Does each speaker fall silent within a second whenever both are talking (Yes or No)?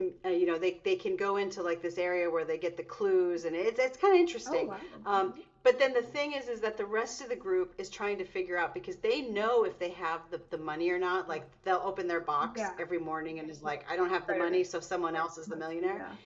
Yes